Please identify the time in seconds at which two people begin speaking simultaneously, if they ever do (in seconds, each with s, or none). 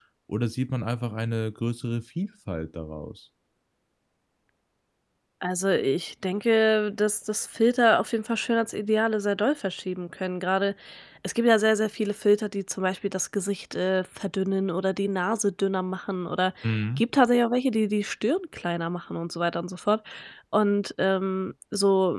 none